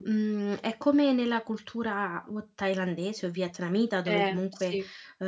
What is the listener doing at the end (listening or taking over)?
listening